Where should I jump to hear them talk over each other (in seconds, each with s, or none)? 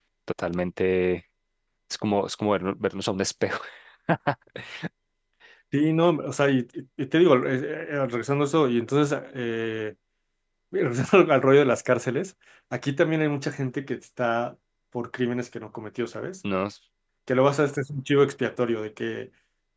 none